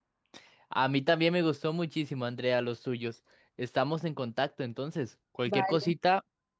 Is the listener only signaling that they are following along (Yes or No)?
Yes